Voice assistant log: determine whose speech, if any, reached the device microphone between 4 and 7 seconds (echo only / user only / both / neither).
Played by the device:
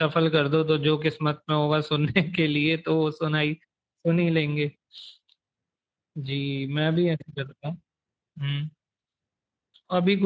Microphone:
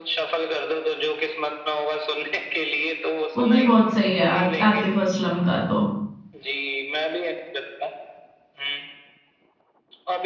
both